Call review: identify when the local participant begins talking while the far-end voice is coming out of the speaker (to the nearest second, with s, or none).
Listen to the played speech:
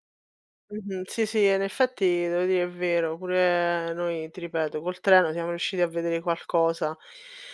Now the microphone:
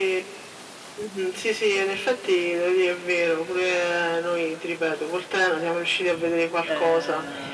7 s